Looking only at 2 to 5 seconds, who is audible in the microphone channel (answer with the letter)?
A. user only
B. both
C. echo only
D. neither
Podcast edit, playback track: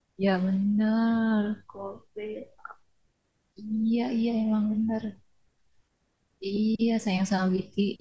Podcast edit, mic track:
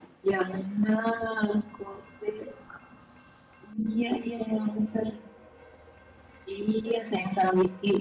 C